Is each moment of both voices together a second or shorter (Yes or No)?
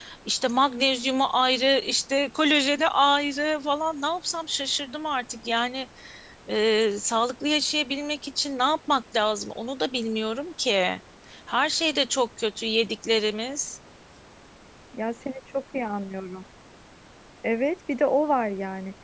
Yes